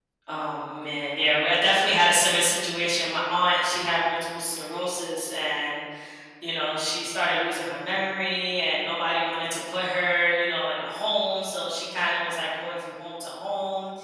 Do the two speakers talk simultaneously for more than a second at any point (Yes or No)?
No